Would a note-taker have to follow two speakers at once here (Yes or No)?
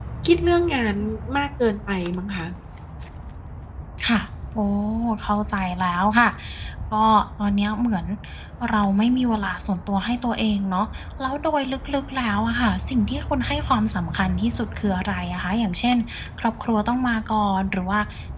No